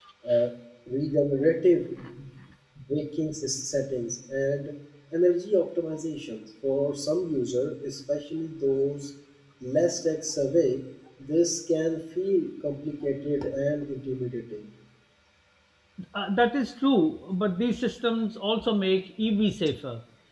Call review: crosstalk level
none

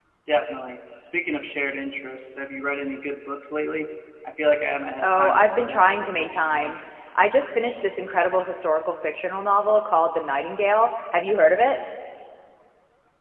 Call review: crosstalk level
present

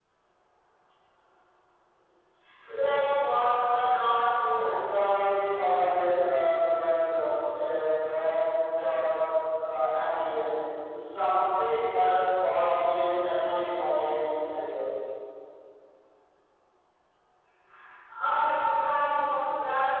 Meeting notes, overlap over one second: none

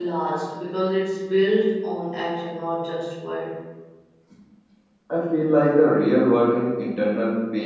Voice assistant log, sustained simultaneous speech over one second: none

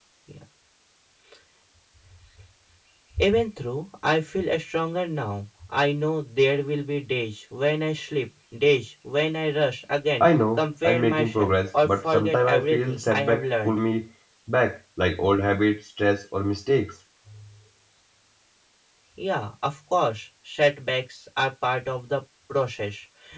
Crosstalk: present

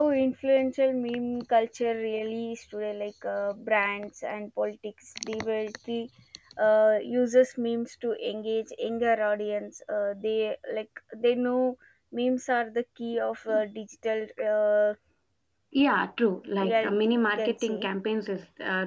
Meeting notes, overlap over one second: present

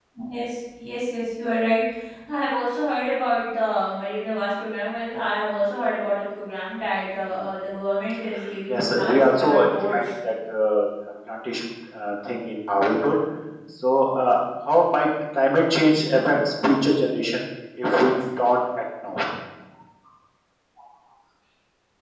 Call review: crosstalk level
present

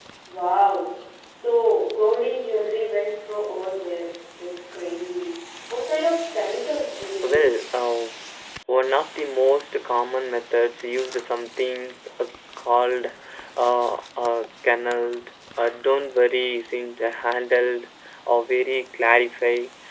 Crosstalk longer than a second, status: none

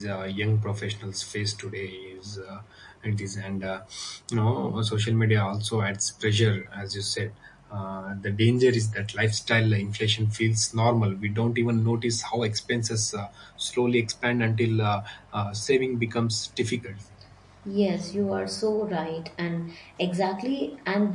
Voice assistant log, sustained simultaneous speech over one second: none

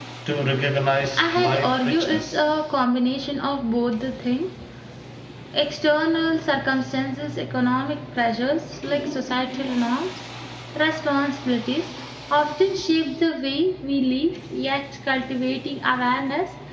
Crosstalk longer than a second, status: present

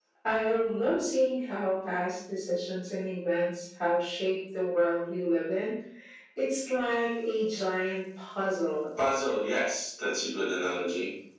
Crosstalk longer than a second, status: none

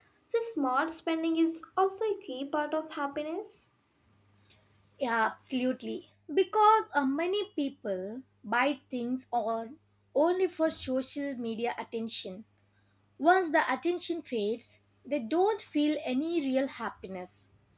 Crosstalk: none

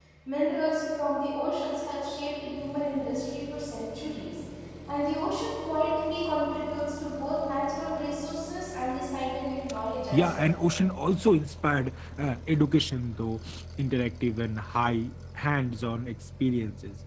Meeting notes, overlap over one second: none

